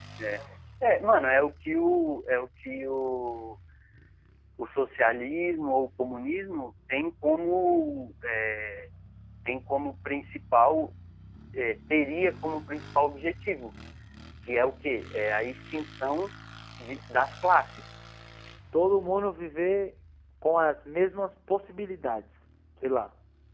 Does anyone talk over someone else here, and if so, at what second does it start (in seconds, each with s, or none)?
none